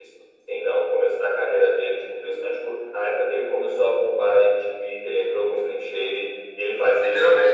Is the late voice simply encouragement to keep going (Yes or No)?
Yes